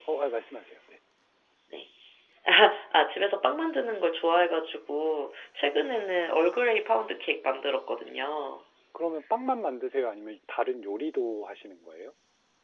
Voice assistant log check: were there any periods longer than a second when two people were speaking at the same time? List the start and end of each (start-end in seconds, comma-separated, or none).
none